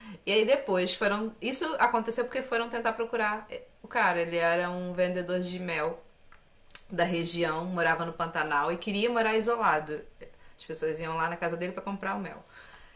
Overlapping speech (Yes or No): No